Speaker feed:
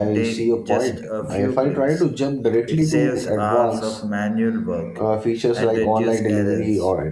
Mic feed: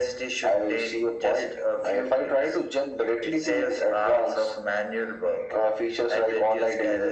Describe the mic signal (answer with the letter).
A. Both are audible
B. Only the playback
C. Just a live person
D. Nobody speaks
B